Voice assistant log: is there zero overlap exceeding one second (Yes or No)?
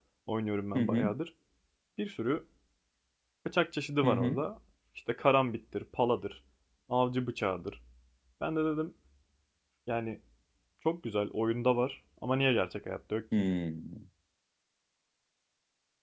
Yes